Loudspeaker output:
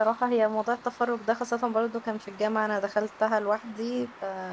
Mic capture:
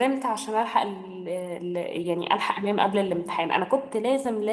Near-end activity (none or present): present